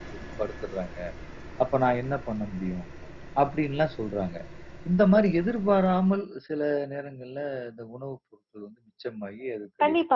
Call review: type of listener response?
taking over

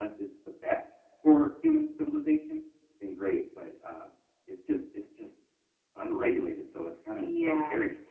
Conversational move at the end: taking over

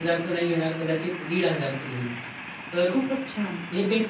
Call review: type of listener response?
listening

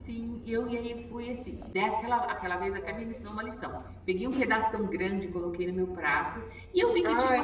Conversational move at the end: listening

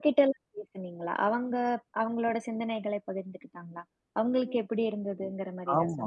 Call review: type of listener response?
taking over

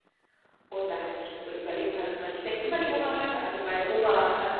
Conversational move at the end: listening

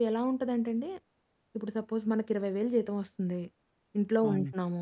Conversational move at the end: listening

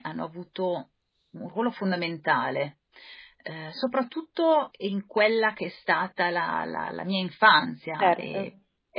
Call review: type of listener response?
listening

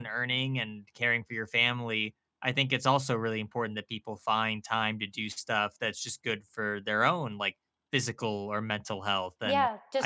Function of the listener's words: taking over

